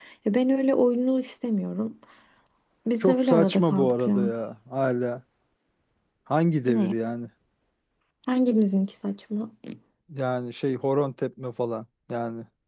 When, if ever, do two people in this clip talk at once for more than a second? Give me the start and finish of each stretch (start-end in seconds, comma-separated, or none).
3.0-4.3